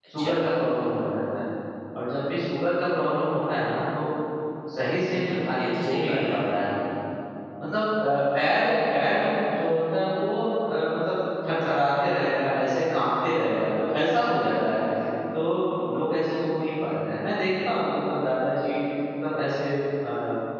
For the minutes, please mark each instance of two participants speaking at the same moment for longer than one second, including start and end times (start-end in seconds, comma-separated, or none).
5.1-6.4